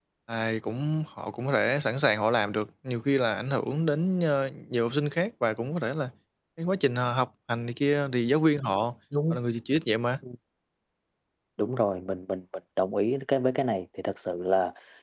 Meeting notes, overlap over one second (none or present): none